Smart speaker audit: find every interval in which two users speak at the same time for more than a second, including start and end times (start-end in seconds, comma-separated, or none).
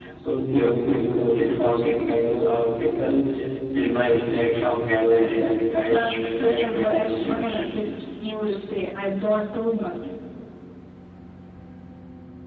5.9-7.6